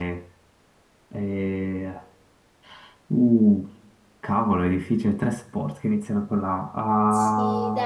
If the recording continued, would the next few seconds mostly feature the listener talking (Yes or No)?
Yes